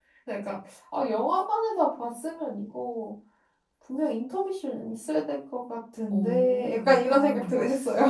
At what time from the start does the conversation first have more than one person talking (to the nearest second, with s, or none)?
6 s